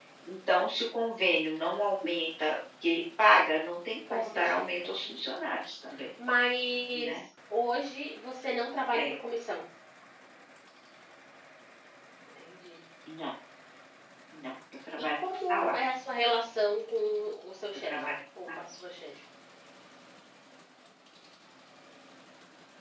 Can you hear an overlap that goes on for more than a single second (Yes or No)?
Yes